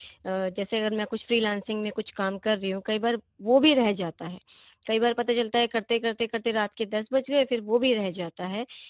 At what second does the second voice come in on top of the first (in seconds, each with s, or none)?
none